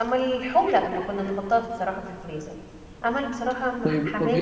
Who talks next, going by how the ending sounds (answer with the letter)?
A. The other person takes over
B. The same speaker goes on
A